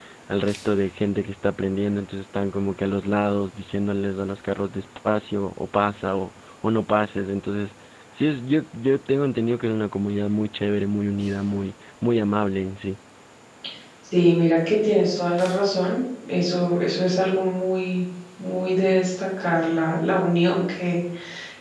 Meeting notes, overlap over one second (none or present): none